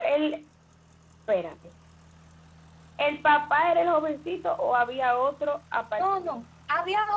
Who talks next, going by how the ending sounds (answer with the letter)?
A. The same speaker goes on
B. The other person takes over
B